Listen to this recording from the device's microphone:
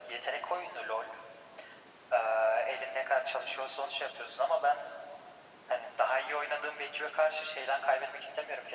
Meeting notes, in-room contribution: none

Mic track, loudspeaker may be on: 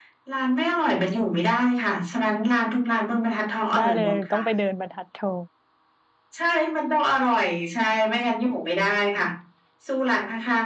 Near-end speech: present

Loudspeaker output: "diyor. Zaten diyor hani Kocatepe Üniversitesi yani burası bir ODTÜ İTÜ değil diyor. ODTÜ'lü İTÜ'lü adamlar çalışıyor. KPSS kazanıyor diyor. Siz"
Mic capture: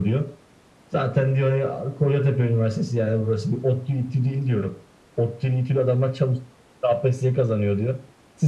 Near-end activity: none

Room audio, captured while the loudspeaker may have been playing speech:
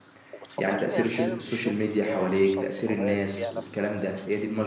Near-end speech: present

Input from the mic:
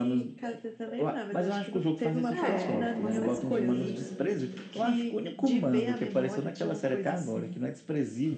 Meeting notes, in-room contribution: present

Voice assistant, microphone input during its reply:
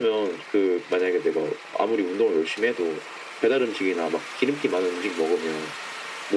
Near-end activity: none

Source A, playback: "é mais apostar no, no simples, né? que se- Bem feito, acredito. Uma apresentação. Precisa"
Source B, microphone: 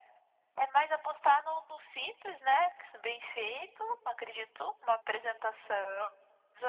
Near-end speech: none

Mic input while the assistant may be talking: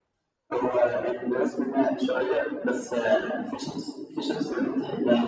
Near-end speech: none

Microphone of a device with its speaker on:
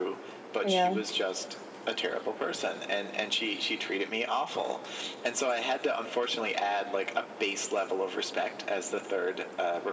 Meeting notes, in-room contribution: present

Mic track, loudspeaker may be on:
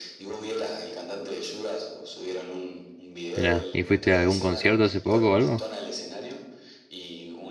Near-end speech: present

